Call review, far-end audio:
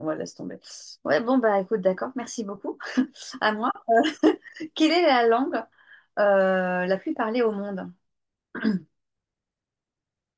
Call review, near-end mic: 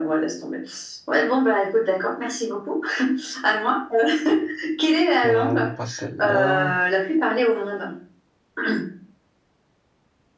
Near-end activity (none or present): present